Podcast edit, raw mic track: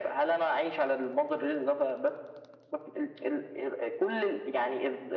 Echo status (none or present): present